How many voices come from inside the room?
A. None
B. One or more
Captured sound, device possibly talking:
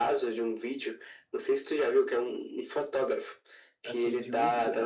B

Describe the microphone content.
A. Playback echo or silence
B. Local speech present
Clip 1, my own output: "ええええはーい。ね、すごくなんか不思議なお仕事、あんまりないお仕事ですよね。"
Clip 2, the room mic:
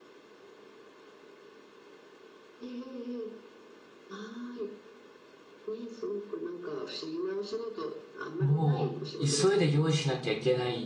B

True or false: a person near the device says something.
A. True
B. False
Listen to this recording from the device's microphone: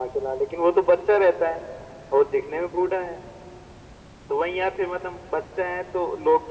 B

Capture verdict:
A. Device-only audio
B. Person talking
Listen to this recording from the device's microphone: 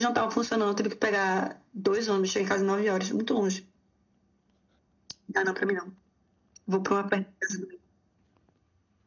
A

